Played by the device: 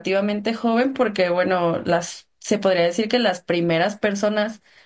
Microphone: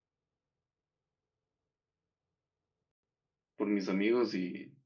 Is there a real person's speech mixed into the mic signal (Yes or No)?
Yes